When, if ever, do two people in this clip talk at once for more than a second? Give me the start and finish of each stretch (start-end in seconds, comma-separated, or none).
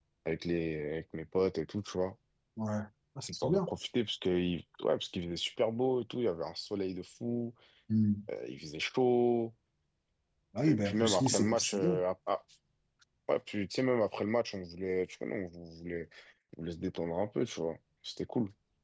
10.7-12.0